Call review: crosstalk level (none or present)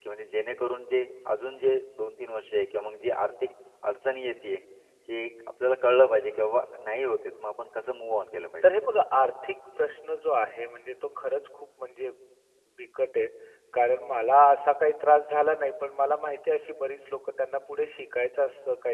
none